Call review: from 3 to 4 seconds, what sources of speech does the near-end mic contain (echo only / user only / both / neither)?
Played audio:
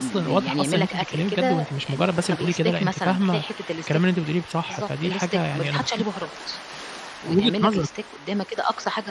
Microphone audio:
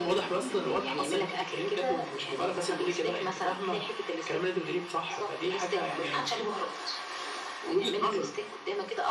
echo only